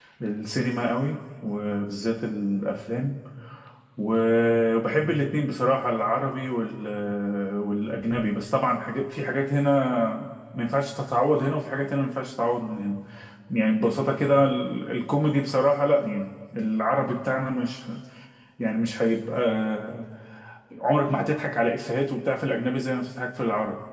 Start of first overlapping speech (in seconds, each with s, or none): none